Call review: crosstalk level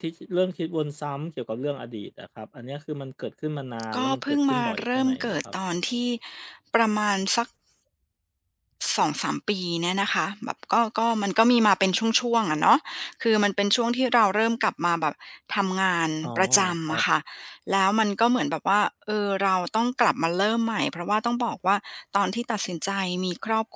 present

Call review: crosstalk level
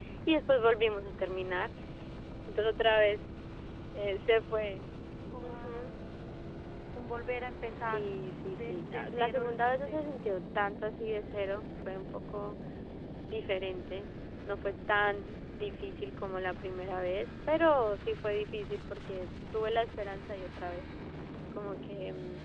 present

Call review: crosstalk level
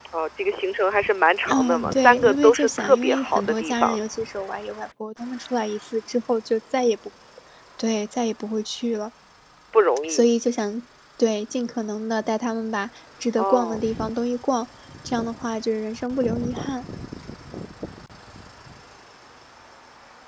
present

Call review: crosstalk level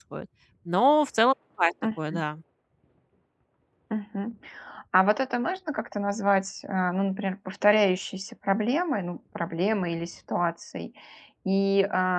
none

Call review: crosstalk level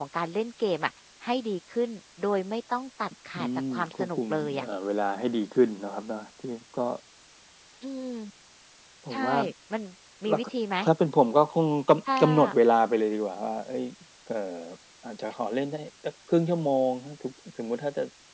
present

